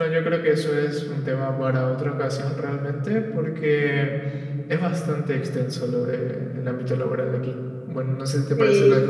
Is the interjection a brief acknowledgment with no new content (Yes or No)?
No